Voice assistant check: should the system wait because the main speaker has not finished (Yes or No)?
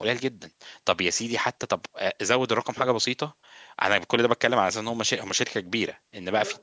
Yes